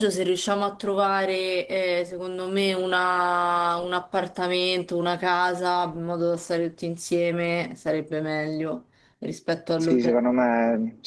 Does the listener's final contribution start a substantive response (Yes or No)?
Yes